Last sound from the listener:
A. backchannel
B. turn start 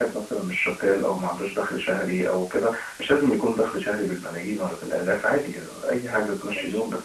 A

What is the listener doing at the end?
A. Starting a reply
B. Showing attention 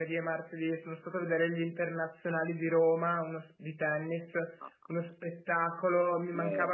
B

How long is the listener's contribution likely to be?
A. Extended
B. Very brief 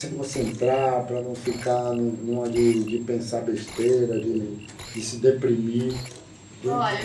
A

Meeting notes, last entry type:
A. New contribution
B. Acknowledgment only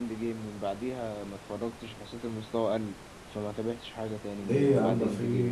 A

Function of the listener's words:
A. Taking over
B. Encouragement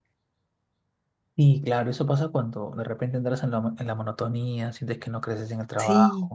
A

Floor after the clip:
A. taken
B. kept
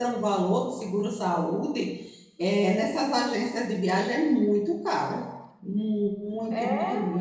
A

